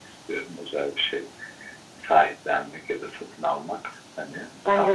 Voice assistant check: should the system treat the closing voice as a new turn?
Yes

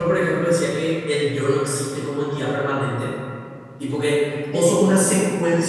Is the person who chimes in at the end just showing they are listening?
Yes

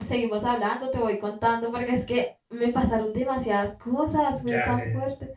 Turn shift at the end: Yes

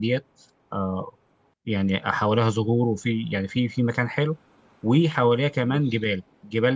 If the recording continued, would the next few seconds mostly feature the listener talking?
No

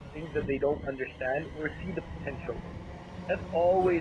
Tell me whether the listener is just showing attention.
Yes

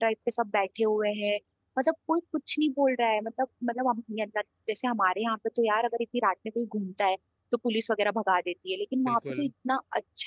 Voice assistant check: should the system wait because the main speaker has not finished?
Yes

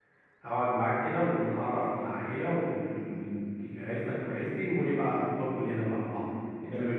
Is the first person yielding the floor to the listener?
Yes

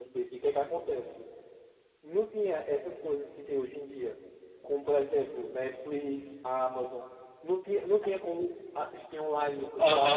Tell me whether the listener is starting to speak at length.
Yes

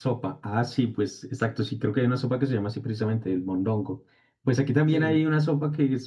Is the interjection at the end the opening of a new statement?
No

